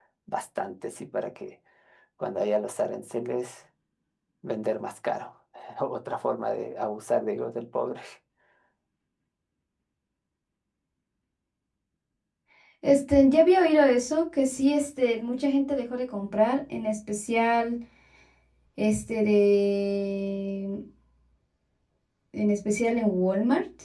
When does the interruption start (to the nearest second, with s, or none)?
none